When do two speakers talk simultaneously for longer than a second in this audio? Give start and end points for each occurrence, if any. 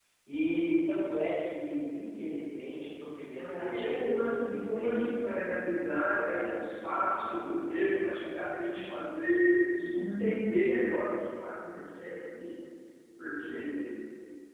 3.3-5.5, 6.0-7.6

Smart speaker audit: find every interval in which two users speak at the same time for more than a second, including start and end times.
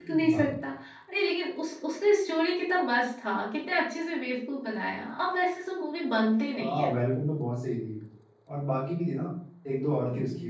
none

